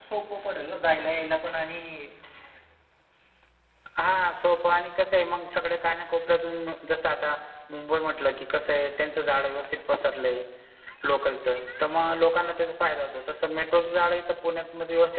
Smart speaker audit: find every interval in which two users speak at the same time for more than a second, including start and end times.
none

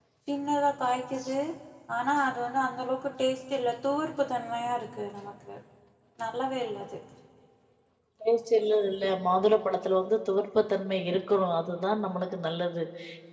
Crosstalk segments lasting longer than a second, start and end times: none

